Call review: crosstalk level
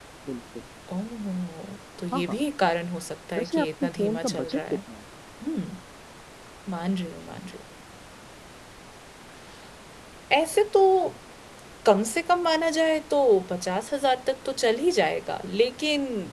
present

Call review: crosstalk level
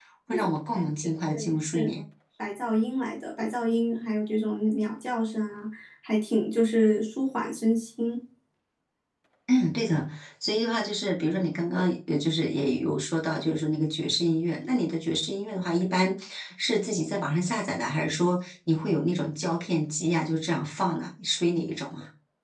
present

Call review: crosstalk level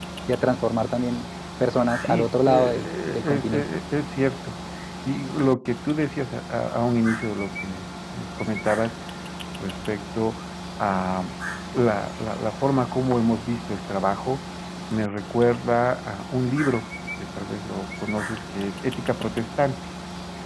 present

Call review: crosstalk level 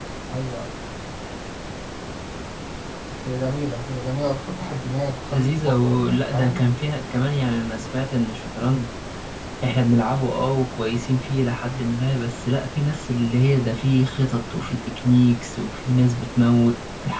present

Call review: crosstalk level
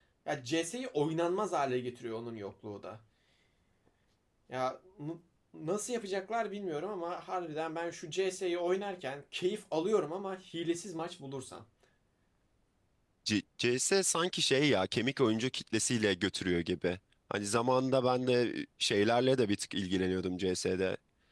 none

